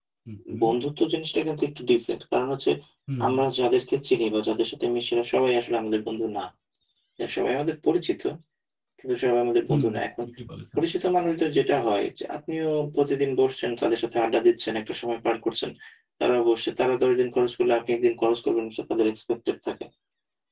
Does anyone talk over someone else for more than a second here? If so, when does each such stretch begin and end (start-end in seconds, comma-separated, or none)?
none